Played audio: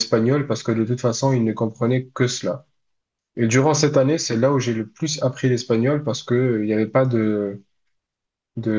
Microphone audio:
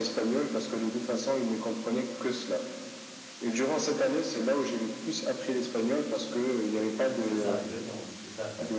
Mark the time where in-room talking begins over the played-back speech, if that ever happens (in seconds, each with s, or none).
7.2 s